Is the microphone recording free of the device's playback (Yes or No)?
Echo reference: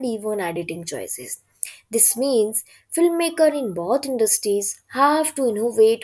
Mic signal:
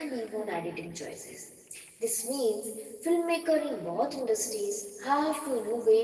No